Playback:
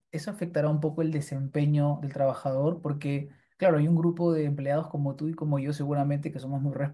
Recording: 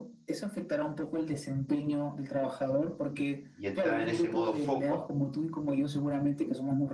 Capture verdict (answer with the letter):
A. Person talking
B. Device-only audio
A